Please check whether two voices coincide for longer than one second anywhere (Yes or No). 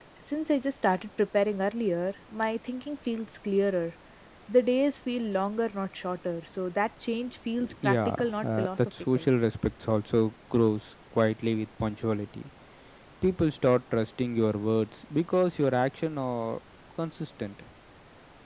Yes